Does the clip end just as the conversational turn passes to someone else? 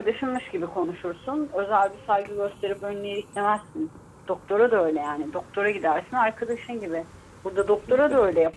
No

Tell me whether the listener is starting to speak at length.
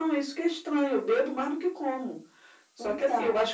No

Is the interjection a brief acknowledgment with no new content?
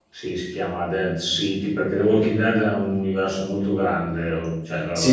No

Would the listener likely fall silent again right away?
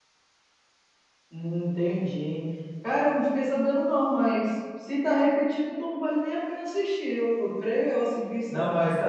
No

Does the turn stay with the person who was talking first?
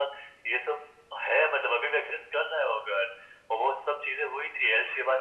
Yes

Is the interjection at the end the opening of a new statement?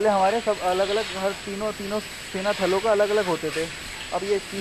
No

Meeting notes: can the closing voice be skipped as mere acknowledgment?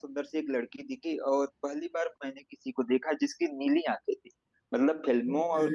Yes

